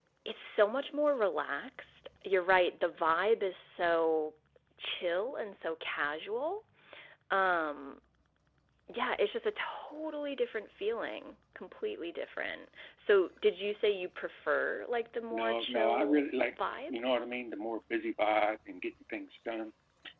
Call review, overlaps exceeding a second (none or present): present